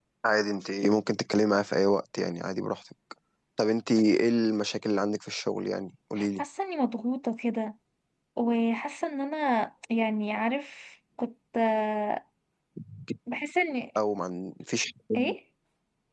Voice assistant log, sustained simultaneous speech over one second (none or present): none